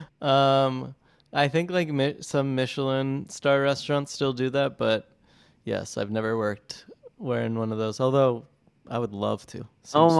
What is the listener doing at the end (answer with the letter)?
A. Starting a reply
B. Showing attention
A